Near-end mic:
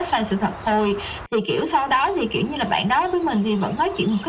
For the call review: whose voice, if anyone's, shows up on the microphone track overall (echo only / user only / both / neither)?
echo only